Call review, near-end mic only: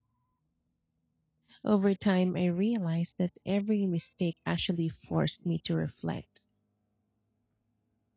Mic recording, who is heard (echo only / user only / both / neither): user only